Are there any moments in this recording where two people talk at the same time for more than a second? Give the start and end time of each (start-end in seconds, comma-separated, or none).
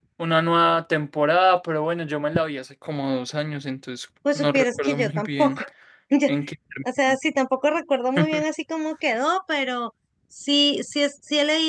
4.3-5.6